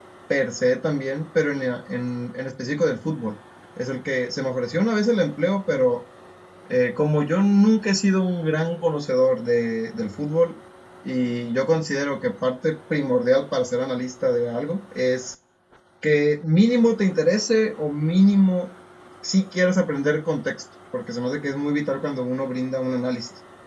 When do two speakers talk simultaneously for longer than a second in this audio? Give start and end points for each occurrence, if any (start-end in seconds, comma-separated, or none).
none